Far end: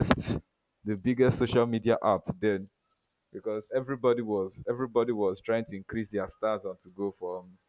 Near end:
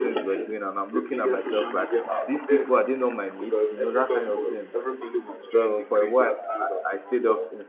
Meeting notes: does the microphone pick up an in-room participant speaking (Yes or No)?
Yes